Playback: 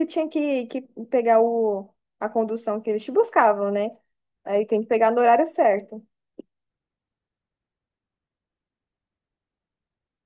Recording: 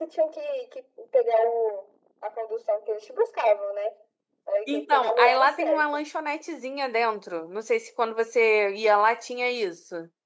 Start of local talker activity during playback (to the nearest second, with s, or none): 5 s